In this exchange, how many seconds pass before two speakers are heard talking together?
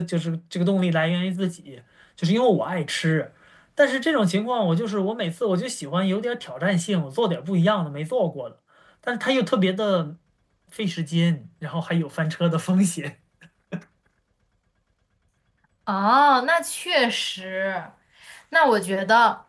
none

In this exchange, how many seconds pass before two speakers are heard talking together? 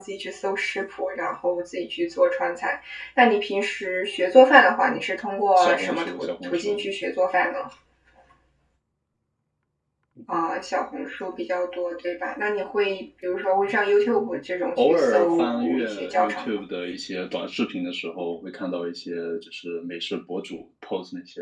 5.6 s

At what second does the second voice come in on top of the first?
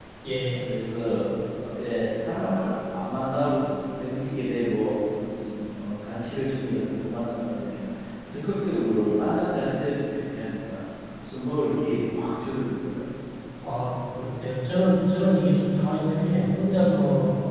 none

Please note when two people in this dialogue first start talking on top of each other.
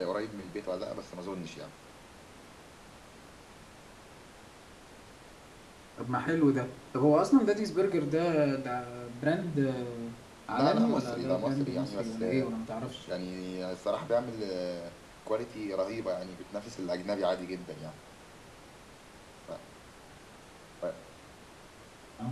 10.5 s

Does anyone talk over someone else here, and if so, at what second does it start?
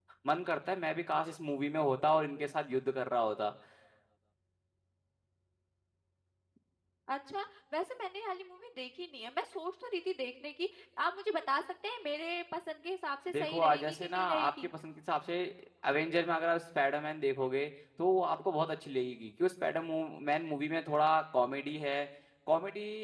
13.3 s

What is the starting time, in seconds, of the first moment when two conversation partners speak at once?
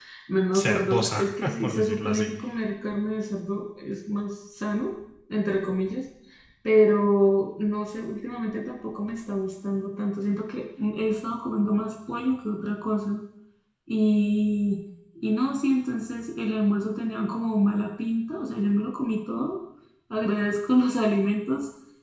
0.5 s

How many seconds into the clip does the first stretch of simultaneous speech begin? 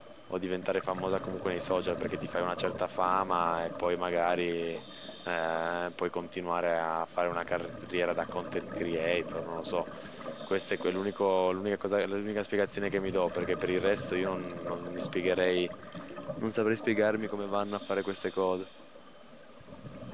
none

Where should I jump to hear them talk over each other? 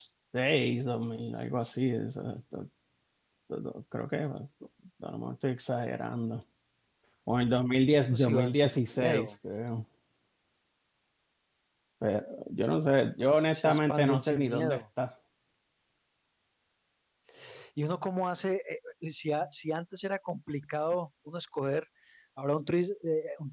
8.1 s

